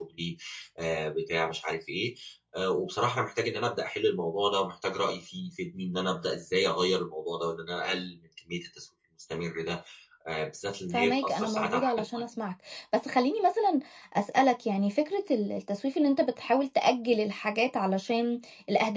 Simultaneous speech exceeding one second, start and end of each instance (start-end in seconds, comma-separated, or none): 10.9-12.2